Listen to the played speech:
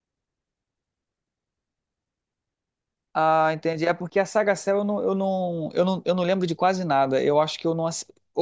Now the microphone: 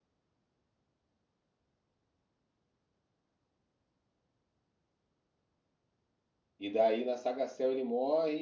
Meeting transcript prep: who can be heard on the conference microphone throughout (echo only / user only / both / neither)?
user only